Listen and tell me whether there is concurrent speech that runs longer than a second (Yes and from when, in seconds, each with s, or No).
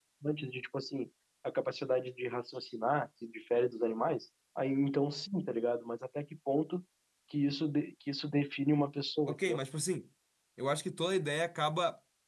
No